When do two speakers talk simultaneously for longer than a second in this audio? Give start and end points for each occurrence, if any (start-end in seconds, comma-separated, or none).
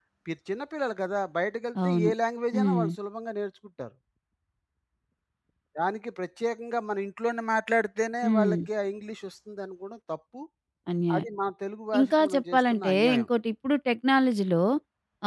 12.0-13.3